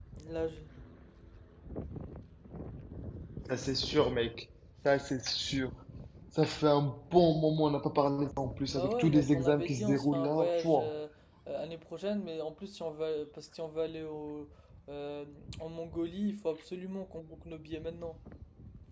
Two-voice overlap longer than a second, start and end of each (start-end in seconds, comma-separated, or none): 8.7-10.9